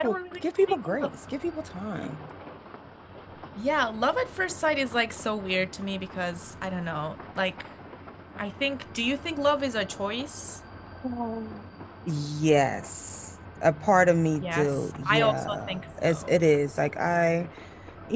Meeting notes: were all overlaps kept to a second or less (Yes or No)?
No